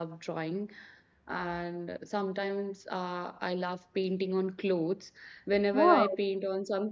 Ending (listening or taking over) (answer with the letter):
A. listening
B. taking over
A